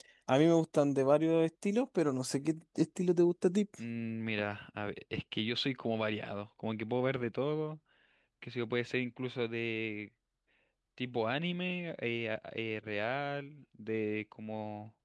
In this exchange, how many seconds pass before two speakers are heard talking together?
none

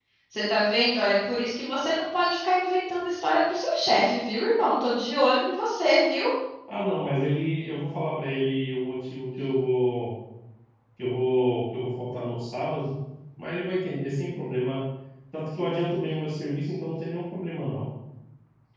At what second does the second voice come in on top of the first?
none

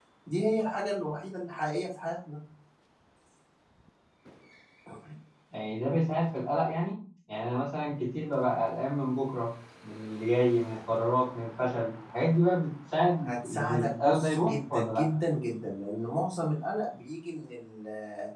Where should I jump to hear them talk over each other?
13.2 s

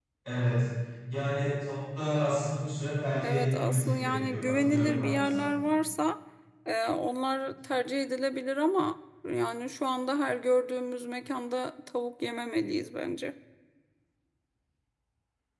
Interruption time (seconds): 3.2 s

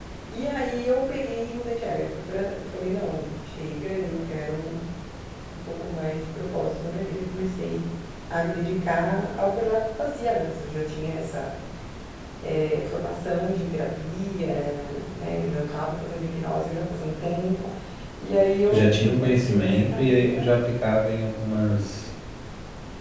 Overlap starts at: 18.6 s

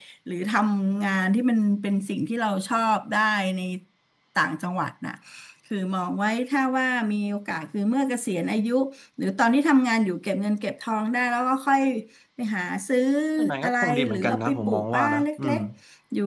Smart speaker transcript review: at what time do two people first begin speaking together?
13.6 s

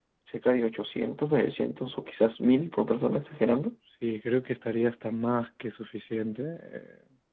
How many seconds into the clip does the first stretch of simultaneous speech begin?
none

